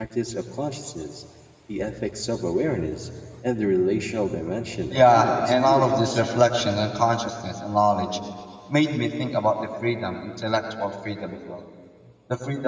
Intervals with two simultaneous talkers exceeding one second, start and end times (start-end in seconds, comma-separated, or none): 4.9-6.2